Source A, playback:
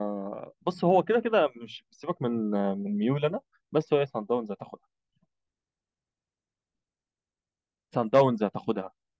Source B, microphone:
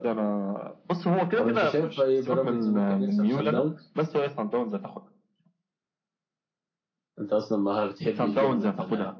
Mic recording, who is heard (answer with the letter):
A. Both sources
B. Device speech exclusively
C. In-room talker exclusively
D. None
A